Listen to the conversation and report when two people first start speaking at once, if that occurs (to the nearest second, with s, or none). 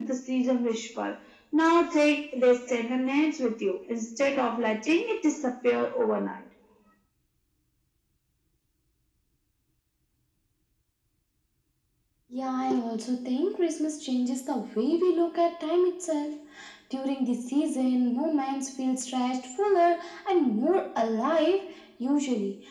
none